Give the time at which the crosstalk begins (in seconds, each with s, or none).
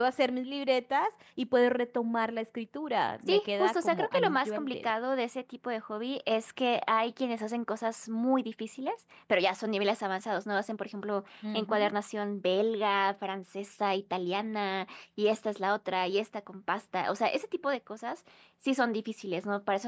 3.3 s